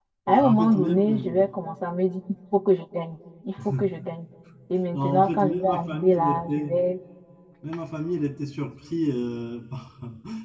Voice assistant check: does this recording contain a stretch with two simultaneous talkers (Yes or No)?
Yes